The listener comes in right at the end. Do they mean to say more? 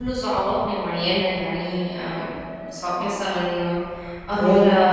Yes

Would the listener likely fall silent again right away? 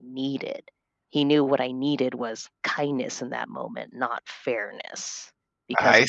No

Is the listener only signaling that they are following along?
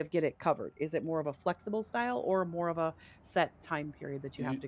No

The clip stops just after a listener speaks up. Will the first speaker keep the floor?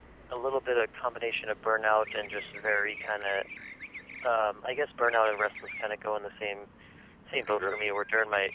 Yes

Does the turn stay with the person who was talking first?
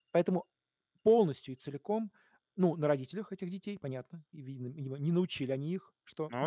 Yes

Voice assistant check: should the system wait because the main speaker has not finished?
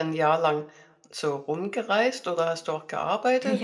No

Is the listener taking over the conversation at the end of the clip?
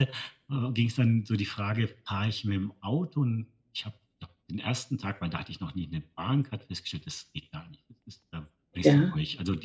No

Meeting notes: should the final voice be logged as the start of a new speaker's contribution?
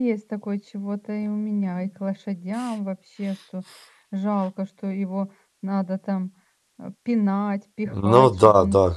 Yes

